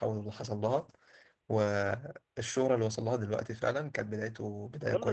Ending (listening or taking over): taking over